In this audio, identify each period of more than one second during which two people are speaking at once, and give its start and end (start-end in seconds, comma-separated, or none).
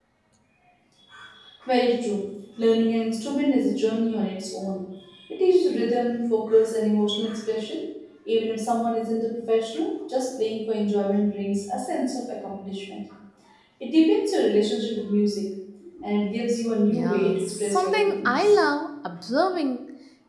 16.9-18.5